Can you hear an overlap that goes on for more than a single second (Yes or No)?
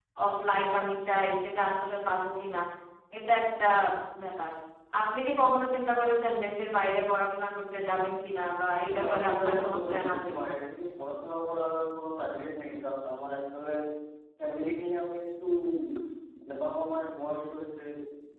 Yes